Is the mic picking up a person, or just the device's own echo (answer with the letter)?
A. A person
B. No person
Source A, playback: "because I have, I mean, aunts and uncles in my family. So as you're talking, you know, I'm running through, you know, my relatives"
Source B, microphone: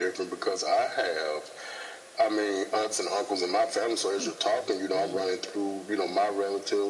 A